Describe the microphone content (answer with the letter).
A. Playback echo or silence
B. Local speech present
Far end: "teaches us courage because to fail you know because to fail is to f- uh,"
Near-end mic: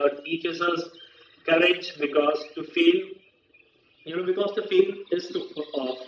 A